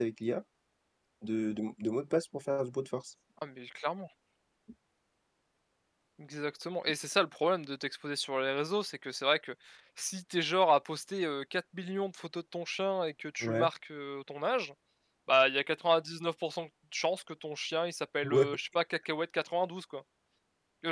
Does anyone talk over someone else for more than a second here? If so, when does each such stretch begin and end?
none

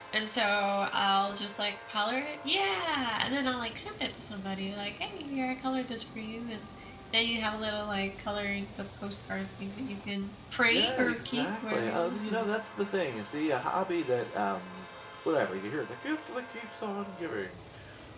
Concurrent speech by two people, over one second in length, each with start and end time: 10.7-12.4

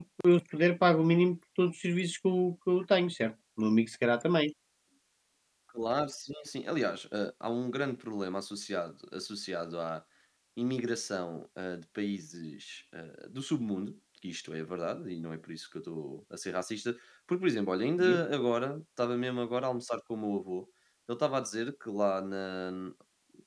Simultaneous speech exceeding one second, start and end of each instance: none

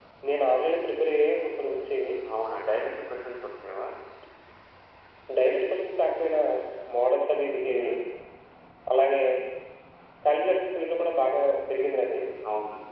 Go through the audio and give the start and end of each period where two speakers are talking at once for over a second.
none

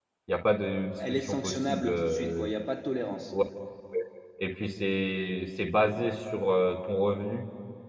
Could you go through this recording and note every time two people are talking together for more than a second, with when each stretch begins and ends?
1.2-2.5

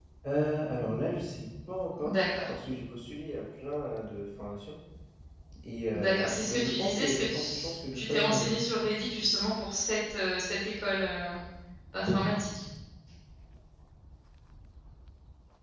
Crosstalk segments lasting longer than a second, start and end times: 5.9-8.5

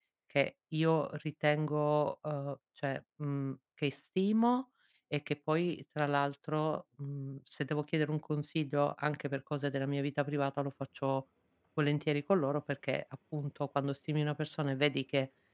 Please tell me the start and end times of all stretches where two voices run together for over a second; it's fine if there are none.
none

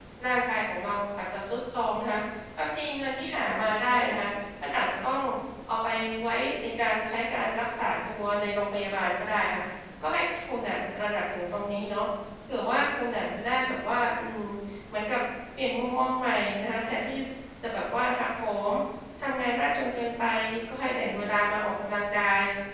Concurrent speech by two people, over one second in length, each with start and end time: none

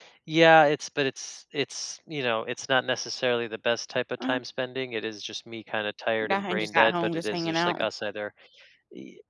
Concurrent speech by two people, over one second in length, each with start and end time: 6.2-7.8

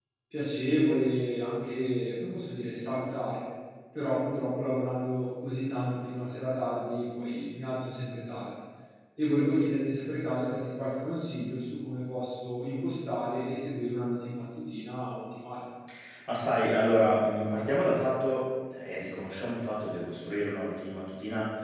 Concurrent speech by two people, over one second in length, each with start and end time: none

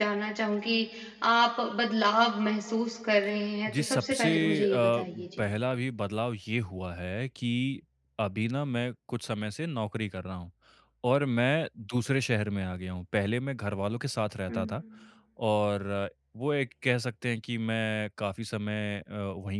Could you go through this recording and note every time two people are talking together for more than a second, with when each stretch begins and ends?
3.7-5.5

